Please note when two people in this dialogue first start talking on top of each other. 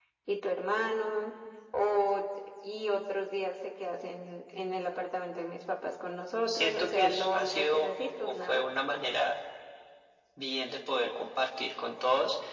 6.5 s

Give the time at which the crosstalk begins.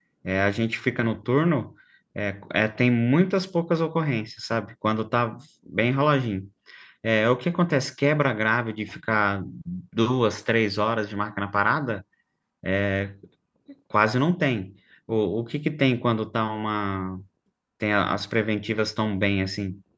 none

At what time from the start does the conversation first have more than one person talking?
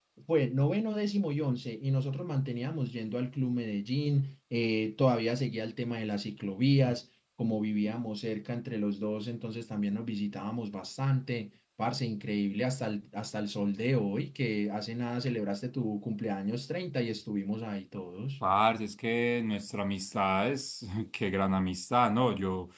none

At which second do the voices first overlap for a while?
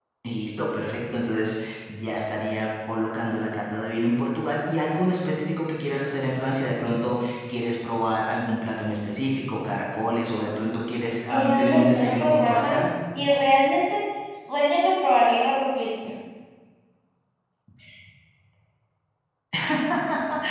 11.3 s

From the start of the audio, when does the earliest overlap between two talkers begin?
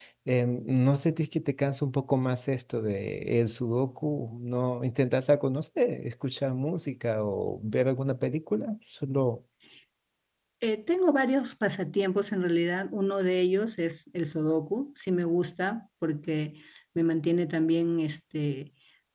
none

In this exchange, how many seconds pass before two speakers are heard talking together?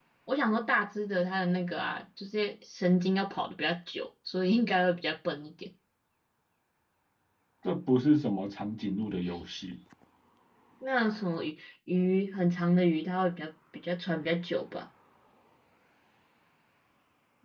none

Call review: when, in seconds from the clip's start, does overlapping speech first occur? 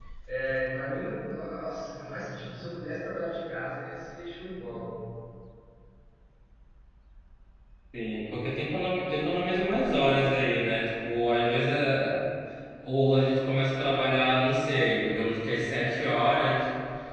none

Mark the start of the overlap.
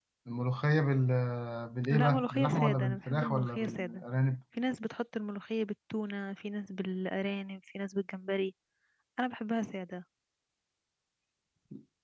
1.9 s

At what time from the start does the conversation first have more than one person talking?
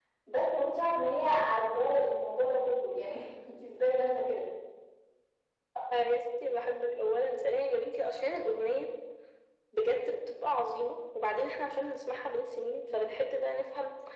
none

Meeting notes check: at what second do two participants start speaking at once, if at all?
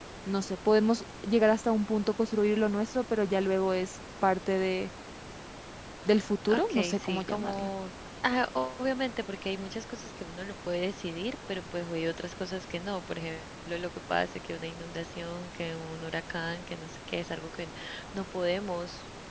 6.5 s

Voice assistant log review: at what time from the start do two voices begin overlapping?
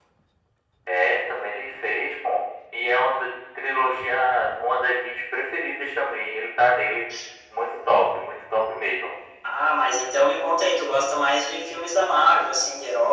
none

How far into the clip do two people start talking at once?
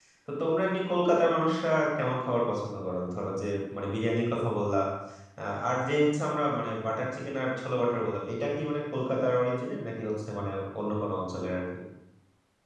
none

